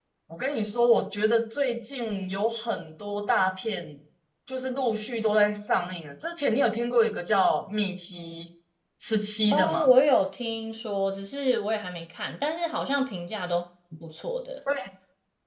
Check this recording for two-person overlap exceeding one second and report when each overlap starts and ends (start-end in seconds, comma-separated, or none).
none